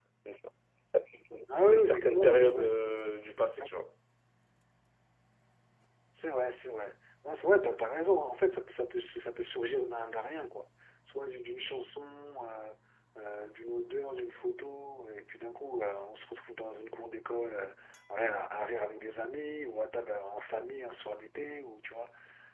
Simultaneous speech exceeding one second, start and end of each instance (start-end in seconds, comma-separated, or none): 1.7-2.9